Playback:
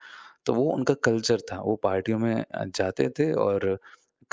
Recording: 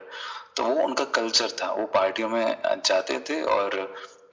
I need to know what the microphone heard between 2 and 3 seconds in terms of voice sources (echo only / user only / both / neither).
echo only